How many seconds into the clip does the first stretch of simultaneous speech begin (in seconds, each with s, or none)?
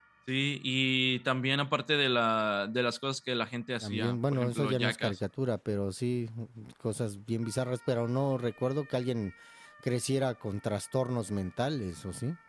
3.8 s